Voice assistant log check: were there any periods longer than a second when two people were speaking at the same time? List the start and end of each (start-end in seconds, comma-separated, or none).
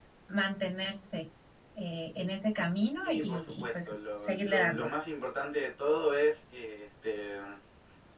3.0-4.9